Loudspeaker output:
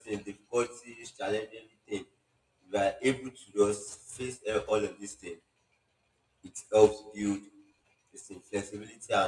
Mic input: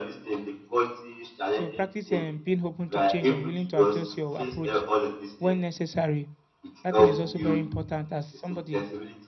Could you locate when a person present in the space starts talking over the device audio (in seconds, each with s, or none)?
1.5 s